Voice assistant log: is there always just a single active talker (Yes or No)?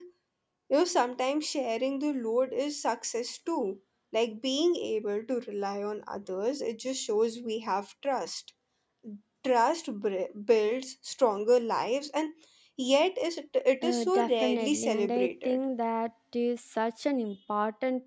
No